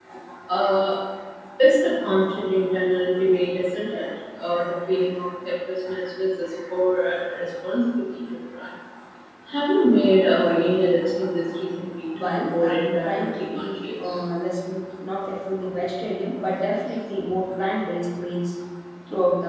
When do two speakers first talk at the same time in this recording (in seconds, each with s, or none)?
12.1 s